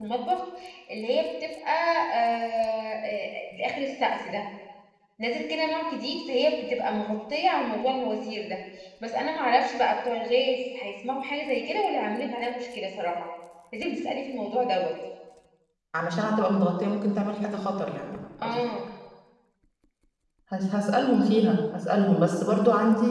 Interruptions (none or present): none